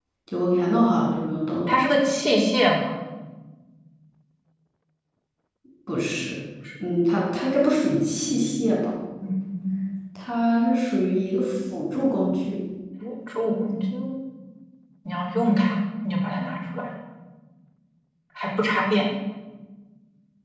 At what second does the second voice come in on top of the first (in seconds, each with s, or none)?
none